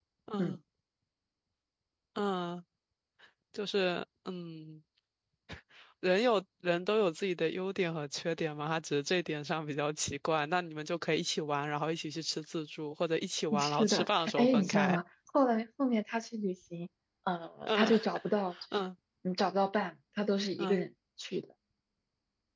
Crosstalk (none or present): present